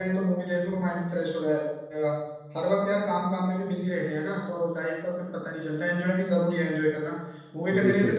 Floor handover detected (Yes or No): No